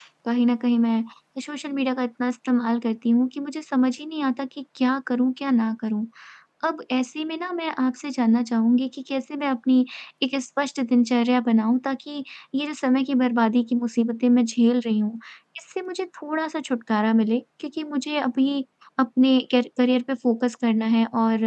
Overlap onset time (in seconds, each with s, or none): none